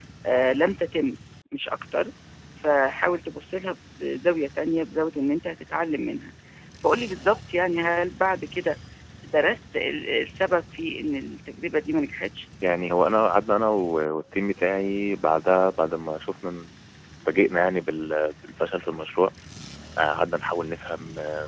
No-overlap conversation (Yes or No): Yes